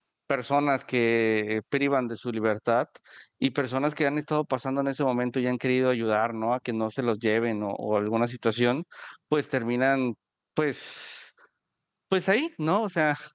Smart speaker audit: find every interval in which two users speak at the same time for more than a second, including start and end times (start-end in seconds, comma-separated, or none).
none